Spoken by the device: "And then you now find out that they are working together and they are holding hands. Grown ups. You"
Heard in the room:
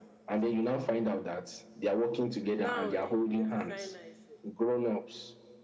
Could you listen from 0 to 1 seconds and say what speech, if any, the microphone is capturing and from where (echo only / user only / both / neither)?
echo only